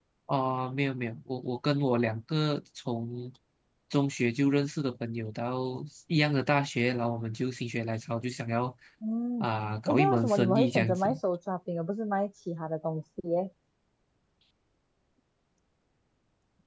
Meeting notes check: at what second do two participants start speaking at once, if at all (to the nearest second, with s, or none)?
10 s